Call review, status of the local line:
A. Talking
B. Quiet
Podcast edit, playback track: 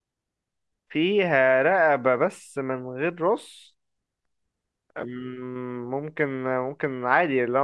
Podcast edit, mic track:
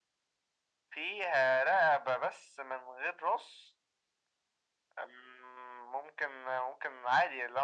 B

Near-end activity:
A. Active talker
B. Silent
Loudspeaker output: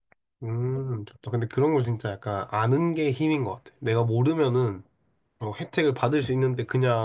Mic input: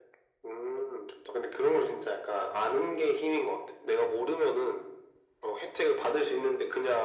B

